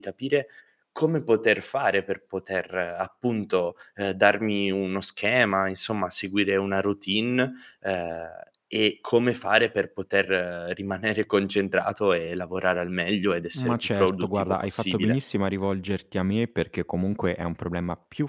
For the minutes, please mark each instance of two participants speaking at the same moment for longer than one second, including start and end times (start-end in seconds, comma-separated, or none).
13.5-15.2